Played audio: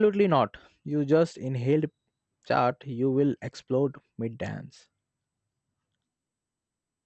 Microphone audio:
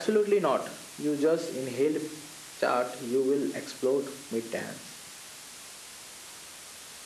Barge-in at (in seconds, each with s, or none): none